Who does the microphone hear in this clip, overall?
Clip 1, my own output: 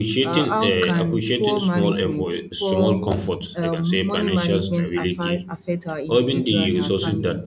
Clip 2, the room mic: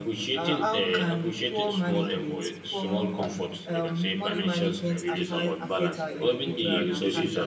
both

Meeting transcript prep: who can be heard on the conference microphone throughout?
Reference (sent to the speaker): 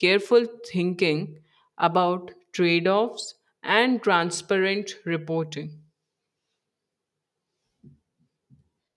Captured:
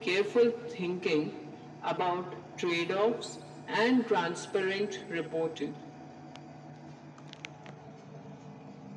echo only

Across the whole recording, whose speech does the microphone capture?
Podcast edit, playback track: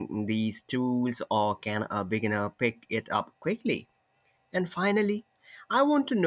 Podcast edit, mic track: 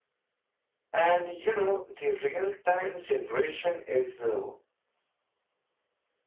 user only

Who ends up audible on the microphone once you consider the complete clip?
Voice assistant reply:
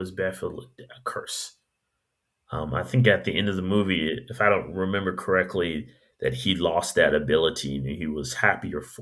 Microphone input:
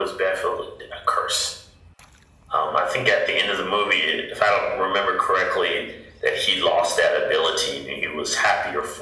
echo only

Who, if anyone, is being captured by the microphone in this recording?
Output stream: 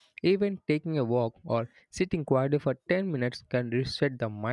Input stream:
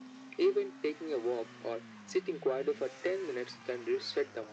echo only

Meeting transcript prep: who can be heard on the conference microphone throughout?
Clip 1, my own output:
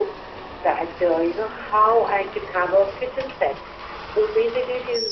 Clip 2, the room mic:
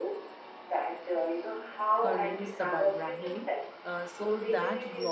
both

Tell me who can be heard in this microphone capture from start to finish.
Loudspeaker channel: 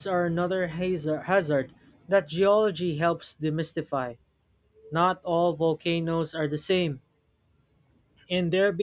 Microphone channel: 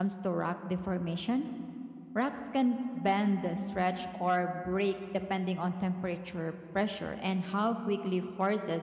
user only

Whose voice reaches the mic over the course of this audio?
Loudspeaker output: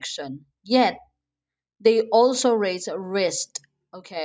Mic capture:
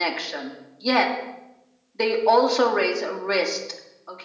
echo only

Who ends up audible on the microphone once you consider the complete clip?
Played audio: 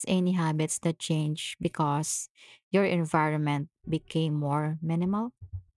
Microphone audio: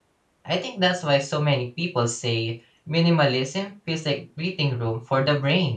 user only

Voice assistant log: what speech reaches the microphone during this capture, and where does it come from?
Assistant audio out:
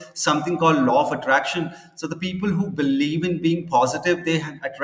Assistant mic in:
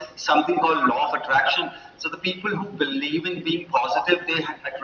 echo only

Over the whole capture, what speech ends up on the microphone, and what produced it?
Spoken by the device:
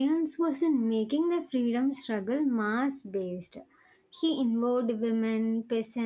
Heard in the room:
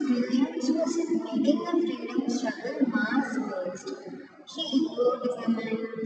echo only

